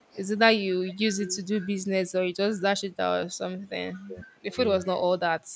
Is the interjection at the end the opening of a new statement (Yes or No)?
No